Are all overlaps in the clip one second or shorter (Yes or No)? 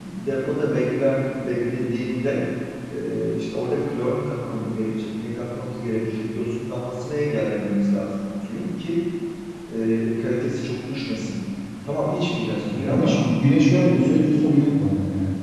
Yes